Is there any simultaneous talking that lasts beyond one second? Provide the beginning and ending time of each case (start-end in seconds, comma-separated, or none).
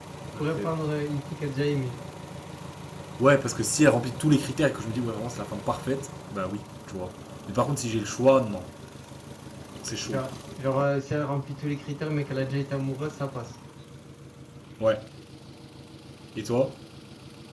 none